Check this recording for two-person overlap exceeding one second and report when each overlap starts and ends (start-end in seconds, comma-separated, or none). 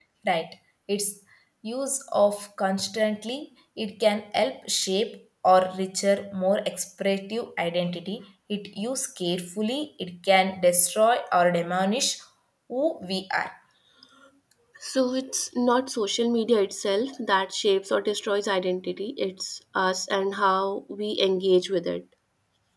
none